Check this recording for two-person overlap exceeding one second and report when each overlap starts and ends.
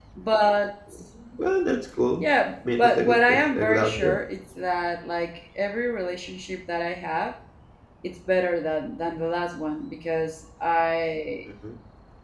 2.8-4.2

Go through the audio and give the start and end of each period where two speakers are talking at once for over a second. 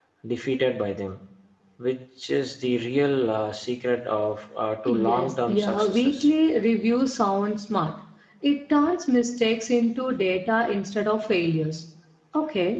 4.9-6.3

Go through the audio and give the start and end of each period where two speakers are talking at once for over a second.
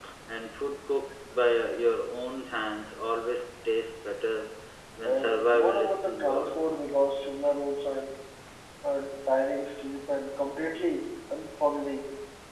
5.0-6.5

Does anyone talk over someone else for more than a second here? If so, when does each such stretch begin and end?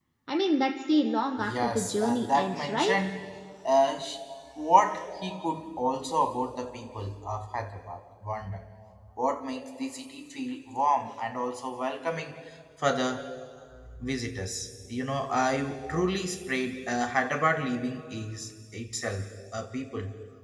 1.4-3.0

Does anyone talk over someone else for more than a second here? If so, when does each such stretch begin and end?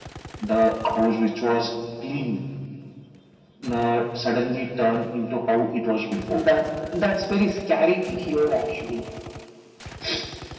none

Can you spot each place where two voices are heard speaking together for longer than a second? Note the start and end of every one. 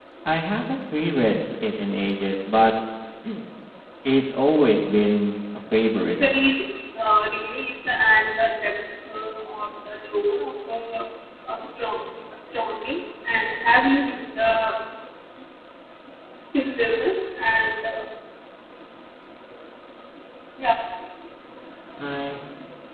none

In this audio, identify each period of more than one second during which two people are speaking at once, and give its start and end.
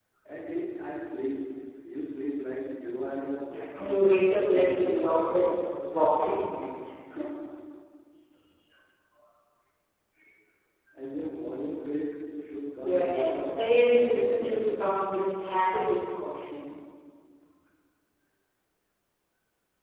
3.8-5.5, 12.8-14.8

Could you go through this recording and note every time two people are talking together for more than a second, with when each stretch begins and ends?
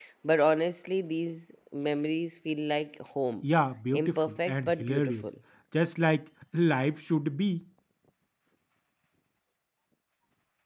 3.9-5.1

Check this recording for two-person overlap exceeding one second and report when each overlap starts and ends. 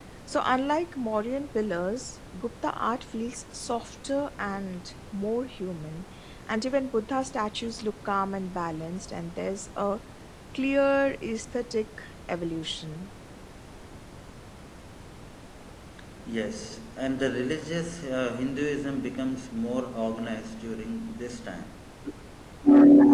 none

